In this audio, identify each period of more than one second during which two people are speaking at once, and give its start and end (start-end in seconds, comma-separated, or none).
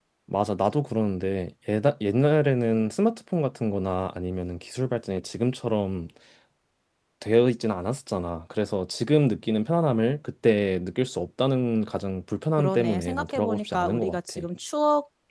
12.6-14.4